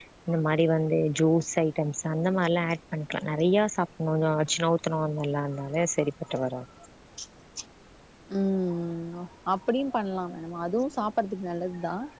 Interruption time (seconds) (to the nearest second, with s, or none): none